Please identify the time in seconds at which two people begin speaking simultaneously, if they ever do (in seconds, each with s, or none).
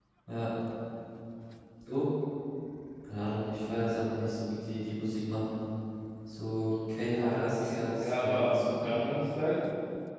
7.1 s